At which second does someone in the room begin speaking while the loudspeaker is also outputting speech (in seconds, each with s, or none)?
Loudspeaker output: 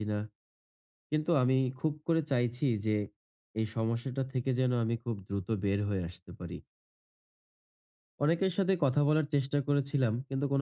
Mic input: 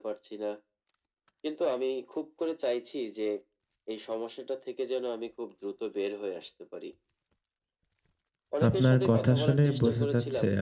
8.7 s